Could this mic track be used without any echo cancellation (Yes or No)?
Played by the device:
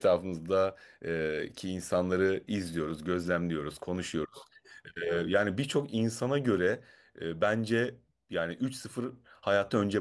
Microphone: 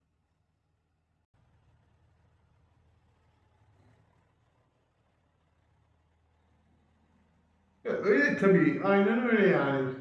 Yes